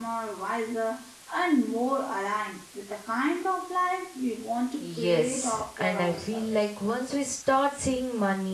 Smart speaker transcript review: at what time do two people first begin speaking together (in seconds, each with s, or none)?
4.8 s